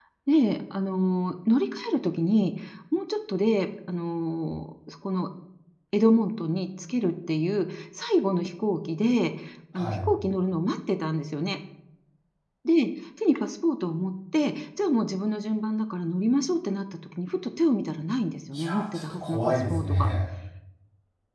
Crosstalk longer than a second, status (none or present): present